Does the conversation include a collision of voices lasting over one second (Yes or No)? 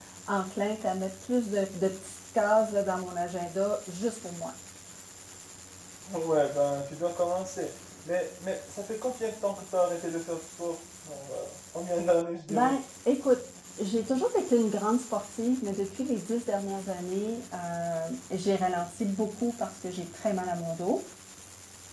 No